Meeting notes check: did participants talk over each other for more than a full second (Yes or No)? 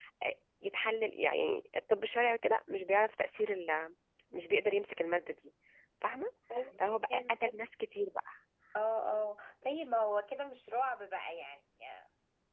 No